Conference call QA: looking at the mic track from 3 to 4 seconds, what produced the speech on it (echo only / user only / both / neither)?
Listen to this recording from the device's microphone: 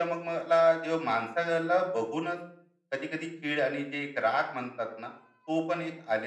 echo only